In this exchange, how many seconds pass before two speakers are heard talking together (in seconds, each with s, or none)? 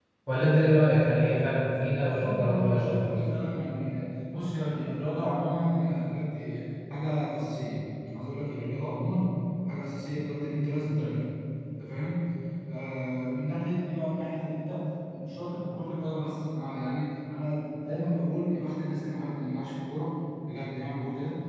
1.9 s